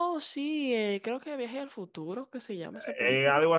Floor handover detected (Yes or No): Yes